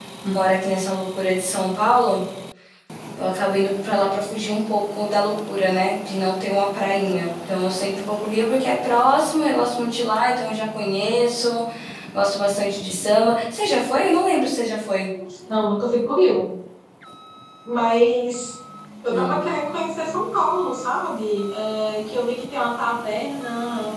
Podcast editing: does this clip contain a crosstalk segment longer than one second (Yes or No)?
No